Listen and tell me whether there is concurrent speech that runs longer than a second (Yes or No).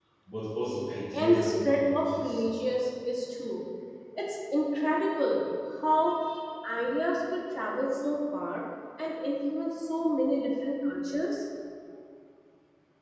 Yes